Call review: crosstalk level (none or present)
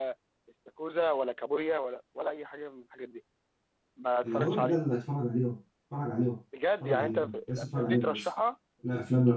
present